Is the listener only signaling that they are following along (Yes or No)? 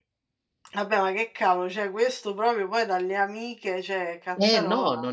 No